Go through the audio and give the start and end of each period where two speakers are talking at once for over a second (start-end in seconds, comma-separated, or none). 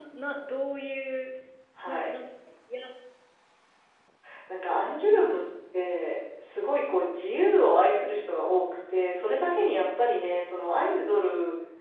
none